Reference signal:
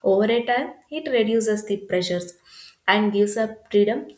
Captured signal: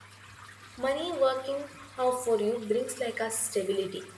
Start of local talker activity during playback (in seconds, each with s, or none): 0.8 s